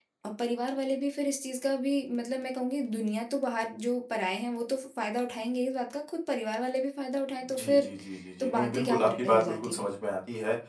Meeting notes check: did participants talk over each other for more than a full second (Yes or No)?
Yes